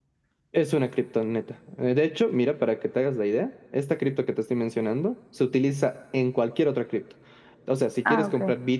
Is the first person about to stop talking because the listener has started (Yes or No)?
No